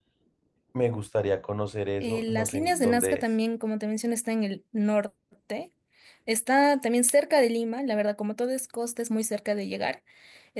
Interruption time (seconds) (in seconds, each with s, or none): 2.0 s